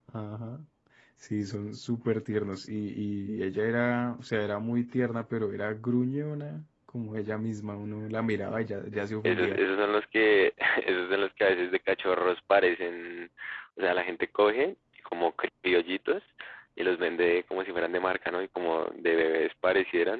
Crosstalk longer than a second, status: none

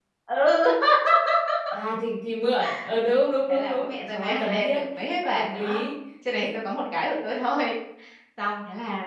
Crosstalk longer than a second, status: present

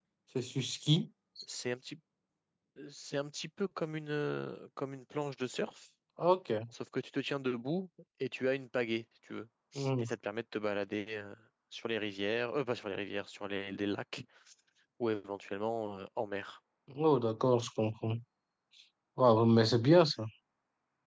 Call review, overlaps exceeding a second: none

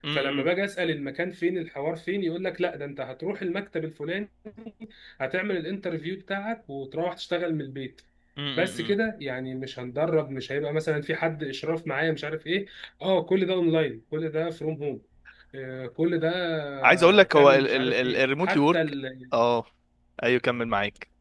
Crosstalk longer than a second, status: present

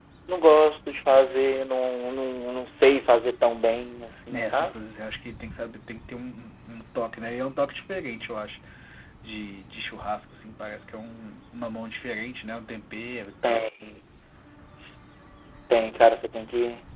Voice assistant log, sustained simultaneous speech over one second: none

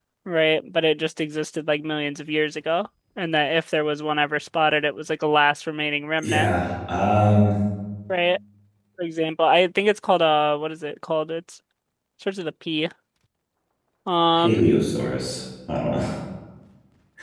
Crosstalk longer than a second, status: none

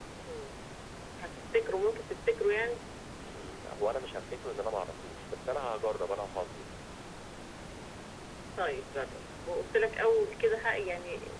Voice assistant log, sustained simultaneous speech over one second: none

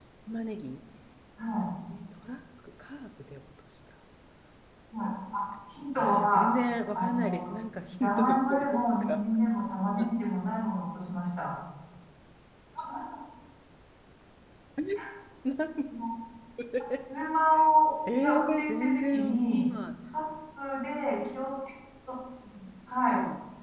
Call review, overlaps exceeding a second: present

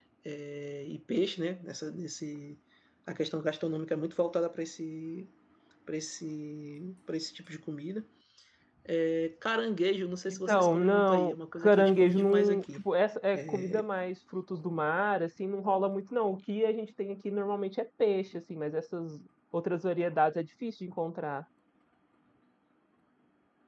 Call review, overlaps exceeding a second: present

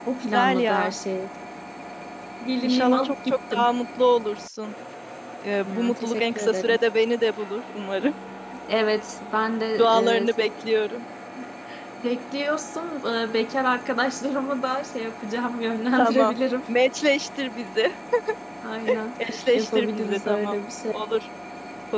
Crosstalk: present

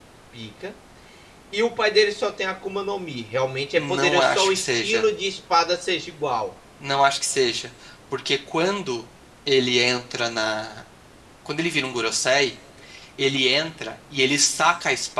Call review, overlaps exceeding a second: present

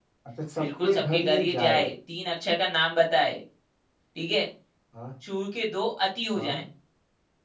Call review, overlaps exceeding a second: present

